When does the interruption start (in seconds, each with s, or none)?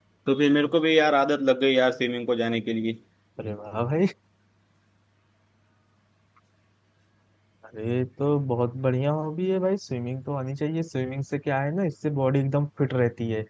none